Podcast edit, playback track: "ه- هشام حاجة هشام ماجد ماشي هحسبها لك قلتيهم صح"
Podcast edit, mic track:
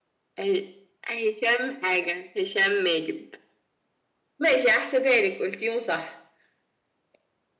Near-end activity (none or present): none